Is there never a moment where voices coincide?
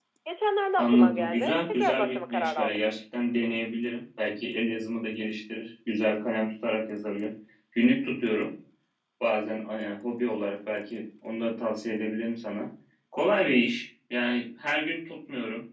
No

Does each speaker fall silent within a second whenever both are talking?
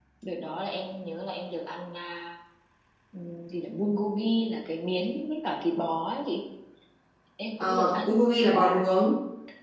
No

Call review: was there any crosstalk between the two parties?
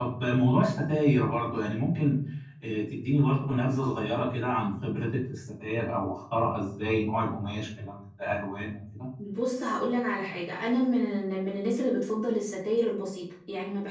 No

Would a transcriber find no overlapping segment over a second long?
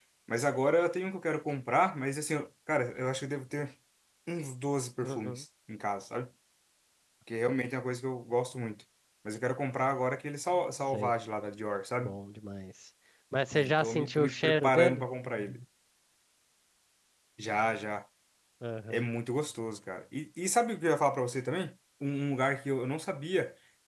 No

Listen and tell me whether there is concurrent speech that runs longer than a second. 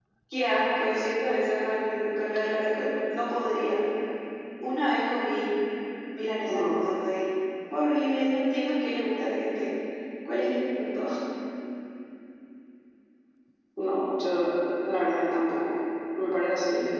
No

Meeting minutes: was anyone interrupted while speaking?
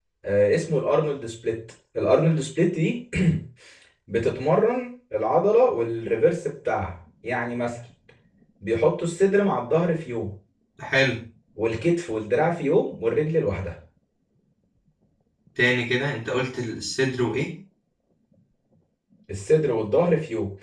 No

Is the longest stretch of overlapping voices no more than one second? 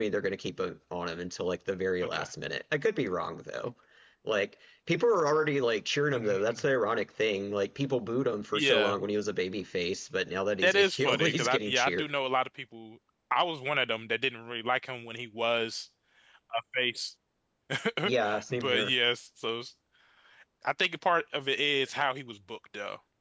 No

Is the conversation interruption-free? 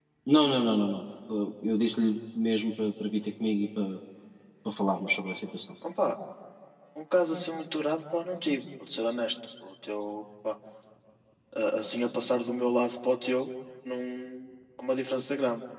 Yes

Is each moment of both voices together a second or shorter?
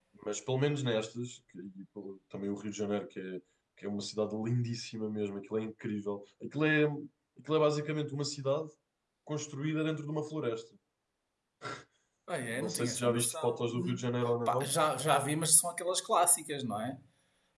No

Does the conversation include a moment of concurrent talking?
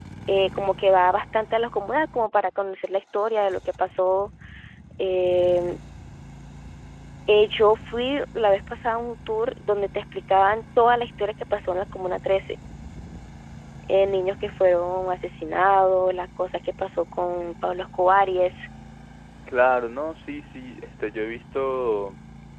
No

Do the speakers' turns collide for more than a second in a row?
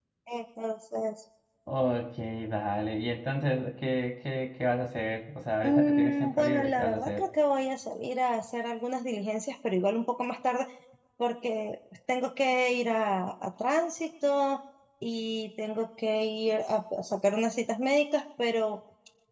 Yes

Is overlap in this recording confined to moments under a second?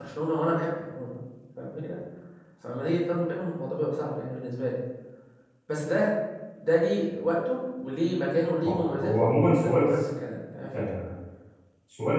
No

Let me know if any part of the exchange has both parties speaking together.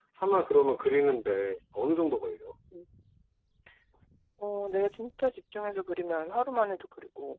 No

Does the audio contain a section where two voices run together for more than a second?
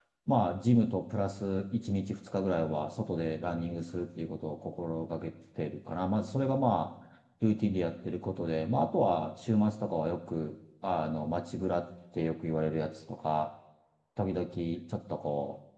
No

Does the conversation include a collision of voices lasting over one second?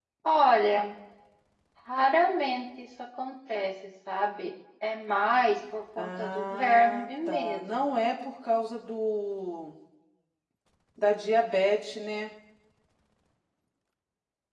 Yes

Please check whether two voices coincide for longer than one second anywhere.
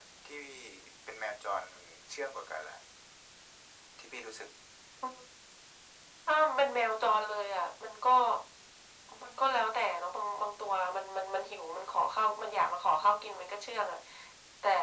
No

